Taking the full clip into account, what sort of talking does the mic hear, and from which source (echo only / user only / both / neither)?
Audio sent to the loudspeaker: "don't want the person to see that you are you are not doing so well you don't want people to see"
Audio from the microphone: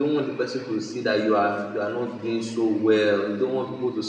echo only